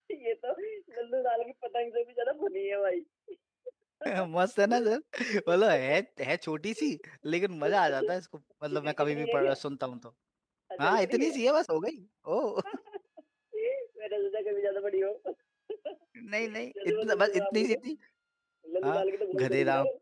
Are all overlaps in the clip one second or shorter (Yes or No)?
No